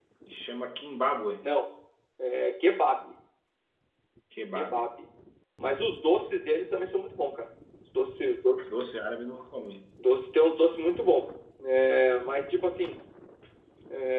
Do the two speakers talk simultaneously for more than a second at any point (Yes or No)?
No